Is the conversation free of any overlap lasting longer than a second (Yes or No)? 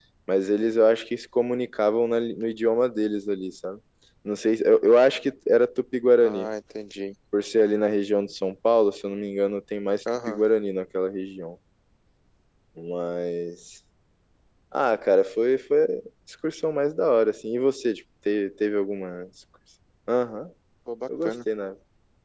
Yes